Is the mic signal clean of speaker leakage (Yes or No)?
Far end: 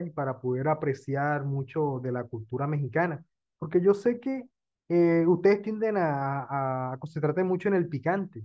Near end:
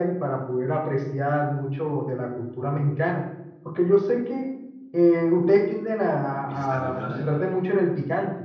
No